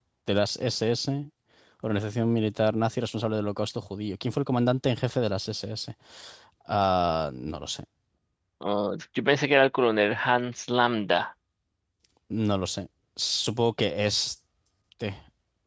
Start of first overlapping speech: none

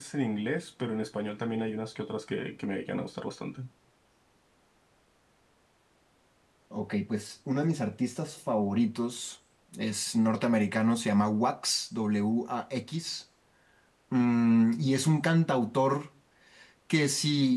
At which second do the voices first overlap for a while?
none

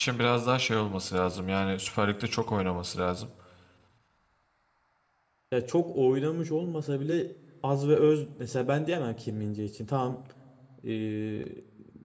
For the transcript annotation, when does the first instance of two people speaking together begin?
none

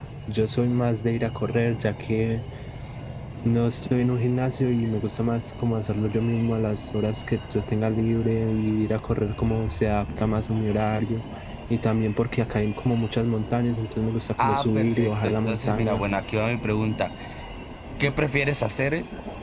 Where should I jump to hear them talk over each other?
14 s

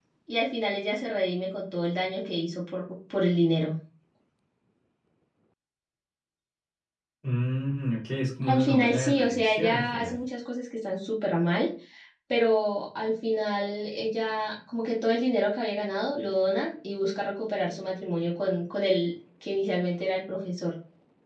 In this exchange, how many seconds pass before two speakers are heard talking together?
8 s

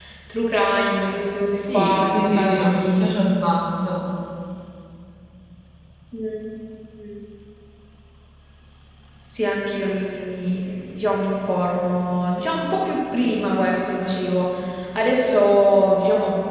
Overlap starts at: 2 s

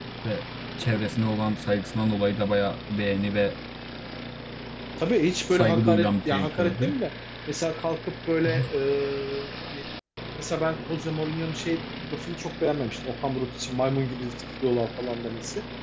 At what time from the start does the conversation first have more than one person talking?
6 s

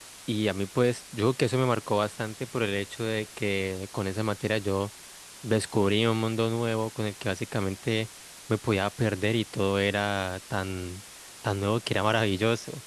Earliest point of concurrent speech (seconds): none

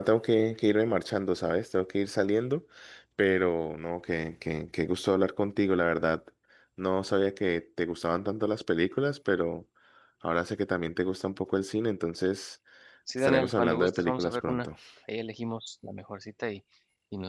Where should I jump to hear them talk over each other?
13 s

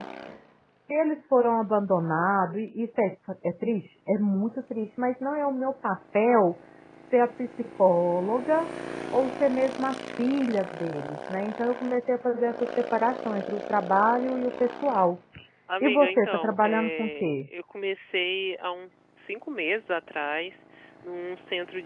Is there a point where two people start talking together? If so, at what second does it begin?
16 s

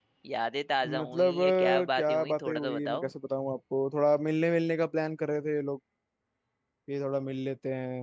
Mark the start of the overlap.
1 s

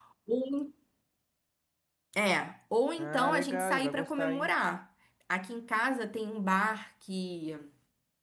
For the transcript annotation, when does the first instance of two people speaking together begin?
3 s

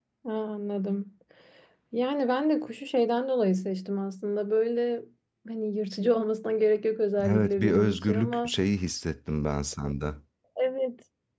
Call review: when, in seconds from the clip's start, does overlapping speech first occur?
7 s

